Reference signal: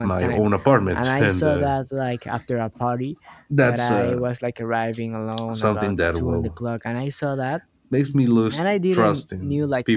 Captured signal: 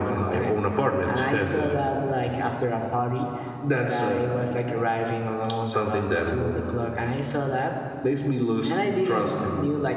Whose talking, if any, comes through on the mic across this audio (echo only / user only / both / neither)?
echo only